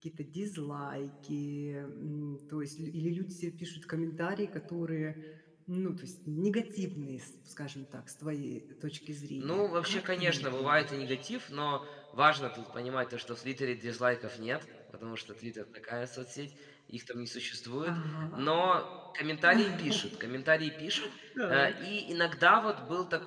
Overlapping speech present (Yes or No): Yes